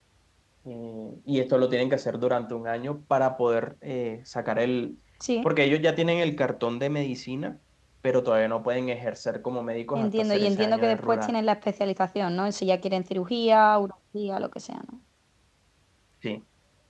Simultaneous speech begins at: 9.9 s

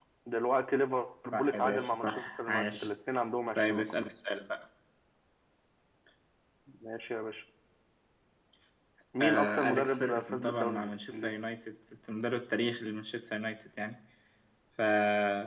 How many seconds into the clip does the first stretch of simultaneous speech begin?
1.3 s

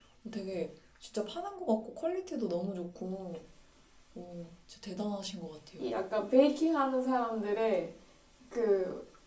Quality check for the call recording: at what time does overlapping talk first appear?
none

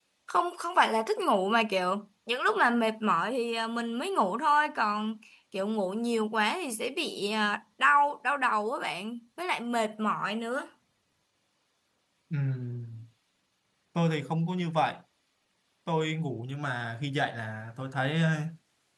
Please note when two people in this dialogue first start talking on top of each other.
none

